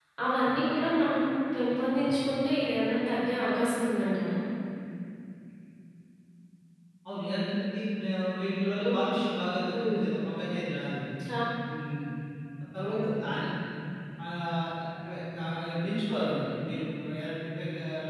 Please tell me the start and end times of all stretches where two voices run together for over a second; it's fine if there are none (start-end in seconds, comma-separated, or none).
none